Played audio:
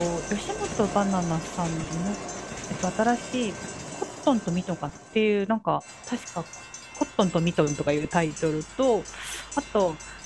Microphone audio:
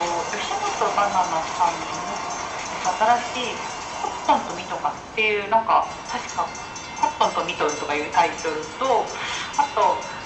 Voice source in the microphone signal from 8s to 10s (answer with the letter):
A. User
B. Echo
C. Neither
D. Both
B